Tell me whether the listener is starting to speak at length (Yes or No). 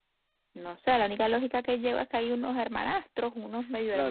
Yes